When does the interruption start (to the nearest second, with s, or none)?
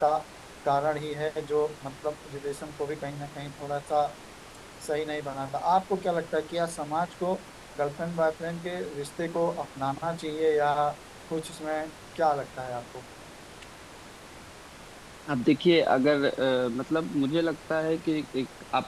none